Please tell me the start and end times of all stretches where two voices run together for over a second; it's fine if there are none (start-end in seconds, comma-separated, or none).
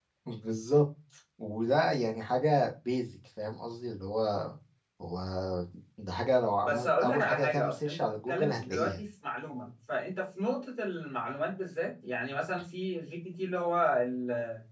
6.7-9.0